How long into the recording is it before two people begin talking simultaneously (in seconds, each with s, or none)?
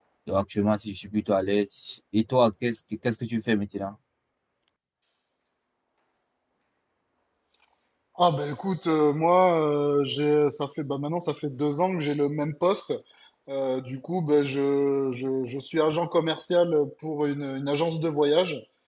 none